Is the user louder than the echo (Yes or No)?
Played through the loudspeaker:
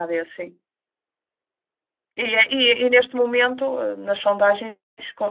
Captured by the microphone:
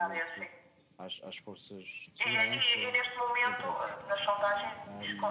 No